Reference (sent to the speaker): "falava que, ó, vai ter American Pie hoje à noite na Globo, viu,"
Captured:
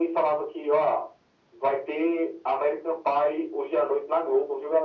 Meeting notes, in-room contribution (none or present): none